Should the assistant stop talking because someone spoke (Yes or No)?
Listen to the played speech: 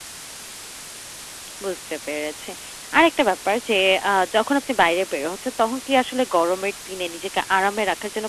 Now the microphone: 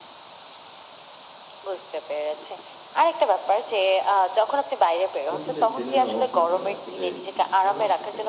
Yes